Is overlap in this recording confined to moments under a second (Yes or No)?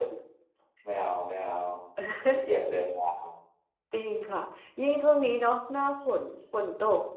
Yes